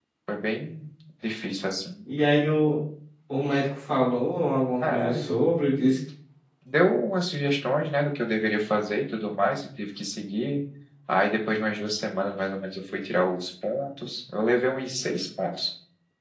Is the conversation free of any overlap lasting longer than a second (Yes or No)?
Yes